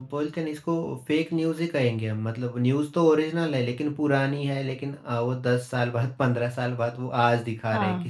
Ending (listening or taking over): taking over